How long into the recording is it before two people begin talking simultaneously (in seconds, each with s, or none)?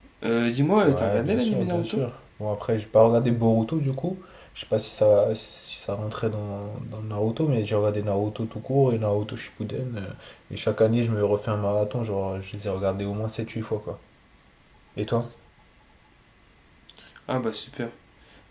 0.8 s